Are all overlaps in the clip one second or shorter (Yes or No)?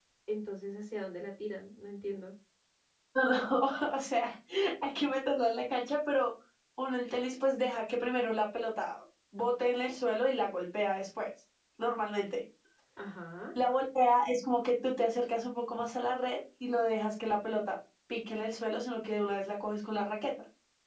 Yes